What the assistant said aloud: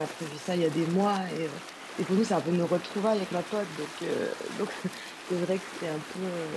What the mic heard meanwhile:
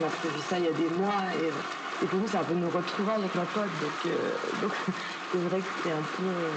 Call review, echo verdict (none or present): present